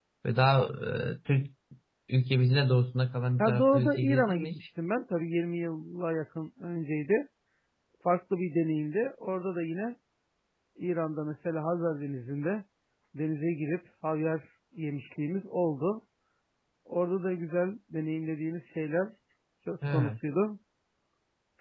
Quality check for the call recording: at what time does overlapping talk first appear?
3.4 s

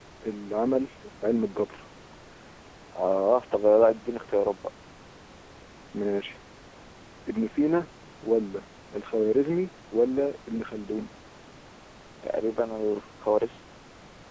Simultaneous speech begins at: none

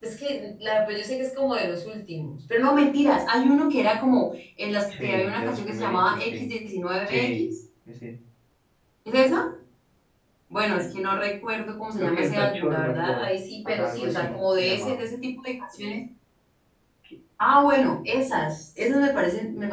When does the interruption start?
4.9 s

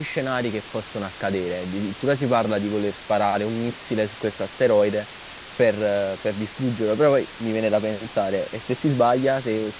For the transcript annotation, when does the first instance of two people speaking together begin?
none

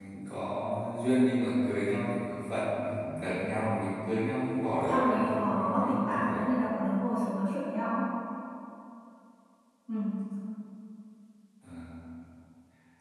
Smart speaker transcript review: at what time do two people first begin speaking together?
4.9 s

